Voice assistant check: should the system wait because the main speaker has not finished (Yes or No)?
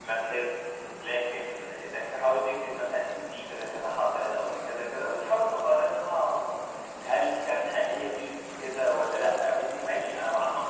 Yes